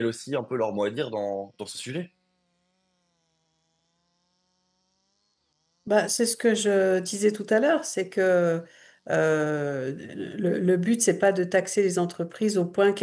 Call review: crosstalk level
none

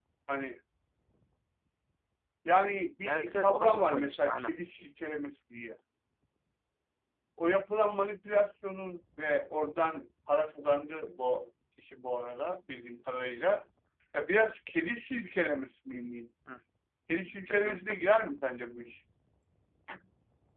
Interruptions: present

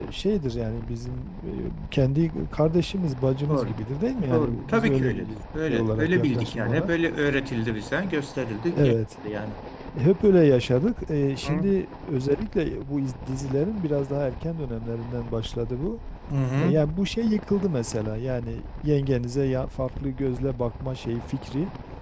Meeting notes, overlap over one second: present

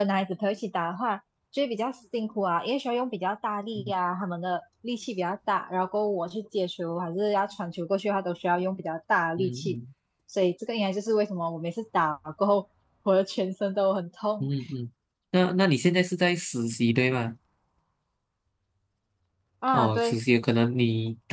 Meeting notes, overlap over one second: none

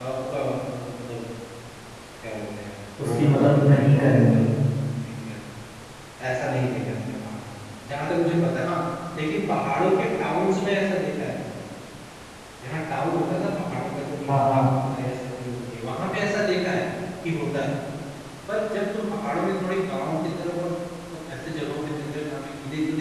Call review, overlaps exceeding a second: present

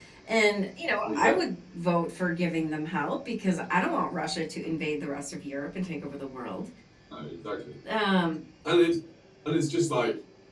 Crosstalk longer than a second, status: none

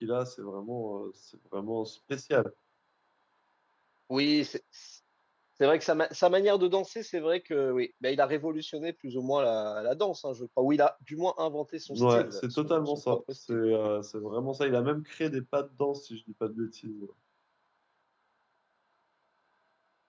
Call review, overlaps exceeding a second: present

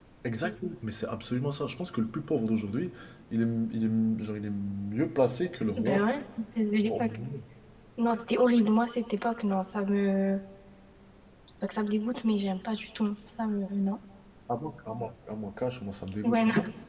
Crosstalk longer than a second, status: none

